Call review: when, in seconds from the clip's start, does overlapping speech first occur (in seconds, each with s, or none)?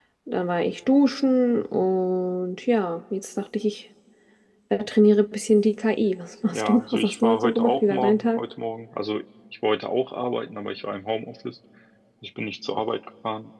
6.5 s